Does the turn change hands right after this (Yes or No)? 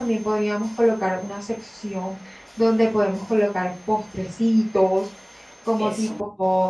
No